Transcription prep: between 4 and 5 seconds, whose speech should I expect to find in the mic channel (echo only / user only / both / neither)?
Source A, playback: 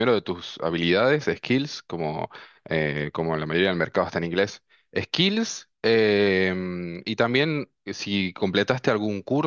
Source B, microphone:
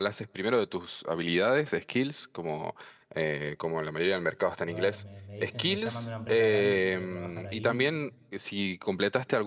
both